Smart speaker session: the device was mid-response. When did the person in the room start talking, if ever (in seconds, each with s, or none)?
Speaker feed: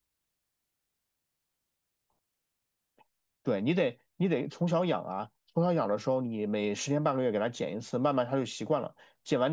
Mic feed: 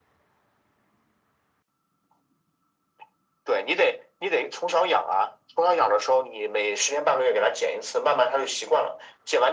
none